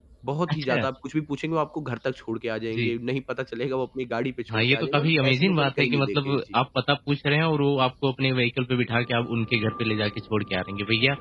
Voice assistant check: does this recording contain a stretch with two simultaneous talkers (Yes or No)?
Yes